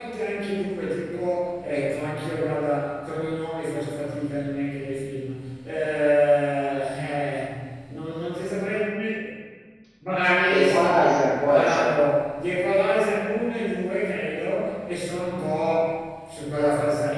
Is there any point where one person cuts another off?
Yes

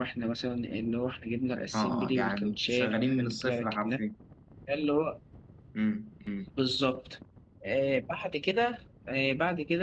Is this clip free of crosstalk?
No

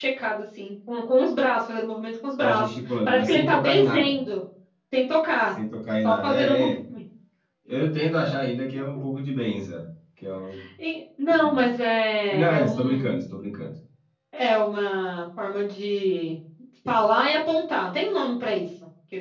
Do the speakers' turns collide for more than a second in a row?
Yes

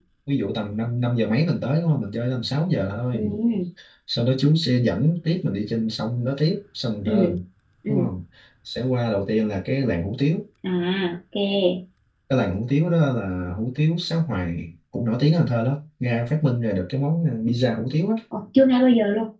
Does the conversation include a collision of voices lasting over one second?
No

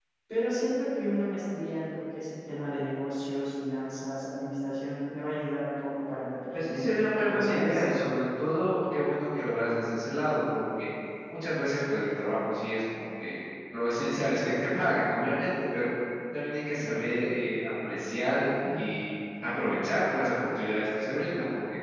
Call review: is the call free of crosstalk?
No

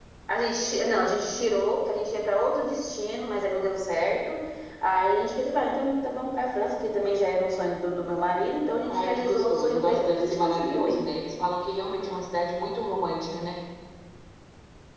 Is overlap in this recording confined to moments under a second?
No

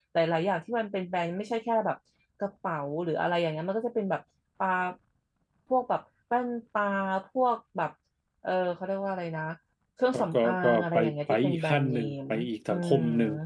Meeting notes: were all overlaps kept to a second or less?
No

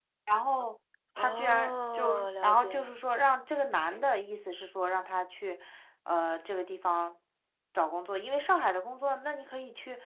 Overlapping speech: Yes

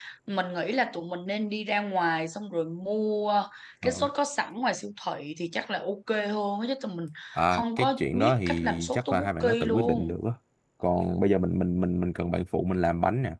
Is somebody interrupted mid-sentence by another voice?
Yes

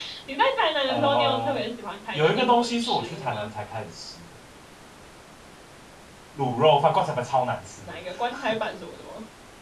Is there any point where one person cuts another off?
Yes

